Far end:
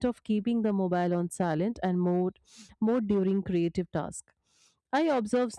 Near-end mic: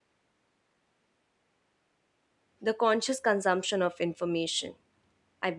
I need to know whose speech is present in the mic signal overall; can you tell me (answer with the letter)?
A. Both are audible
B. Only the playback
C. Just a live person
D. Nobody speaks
C